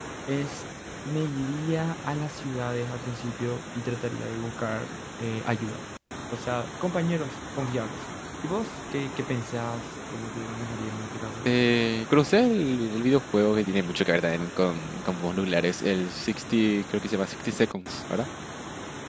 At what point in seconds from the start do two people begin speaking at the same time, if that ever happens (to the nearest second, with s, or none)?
none